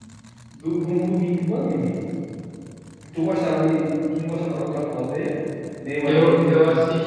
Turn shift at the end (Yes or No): Yes